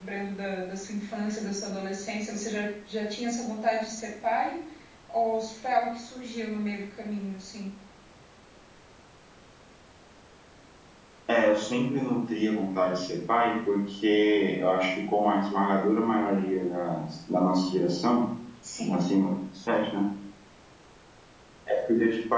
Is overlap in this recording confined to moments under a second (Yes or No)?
Yes